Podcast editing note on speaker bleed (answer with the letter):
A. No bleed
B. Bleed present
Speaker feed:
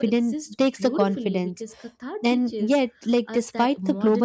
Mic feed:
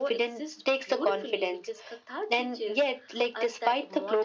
B